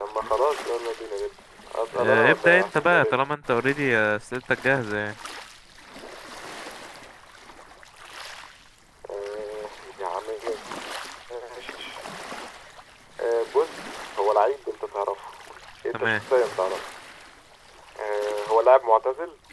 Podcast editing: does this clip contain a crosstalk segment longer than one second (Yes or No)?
Yes